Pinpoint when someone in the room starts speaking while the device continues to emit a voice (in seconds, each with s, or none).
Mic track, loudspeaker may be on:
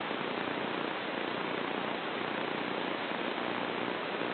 none